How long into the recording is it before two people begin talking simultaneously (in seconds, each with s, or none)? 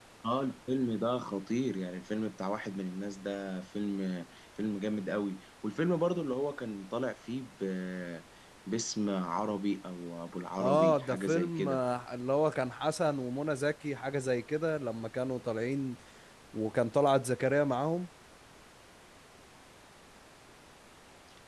10.6 s